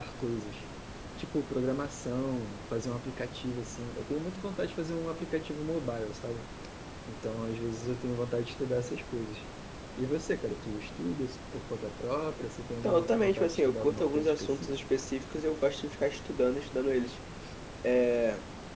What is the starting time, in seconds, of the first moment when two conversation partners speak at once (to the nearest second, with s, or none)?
13 s